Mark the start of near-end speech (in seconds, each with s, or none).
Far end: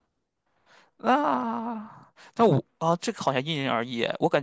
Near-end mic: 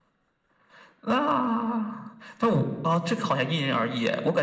none